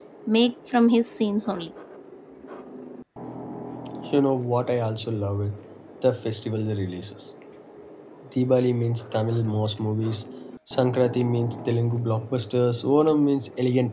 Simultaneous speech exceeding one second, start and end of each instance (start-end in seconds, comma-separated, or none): none